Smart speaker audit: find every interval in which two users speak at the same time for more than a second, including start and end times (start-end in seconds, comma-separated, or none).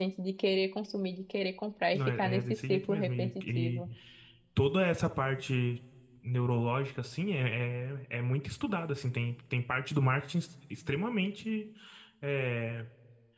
1.9-3.8